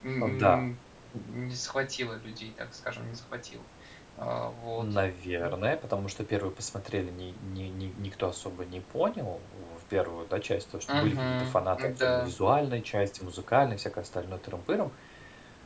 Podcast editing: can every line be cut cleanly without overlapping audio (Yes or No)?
No